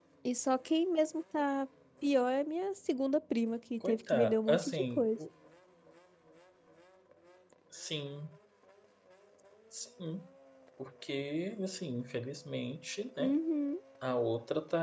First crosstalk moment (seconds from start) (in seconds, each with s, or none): 3.8 s